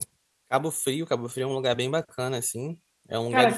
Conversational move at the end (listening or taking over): taking over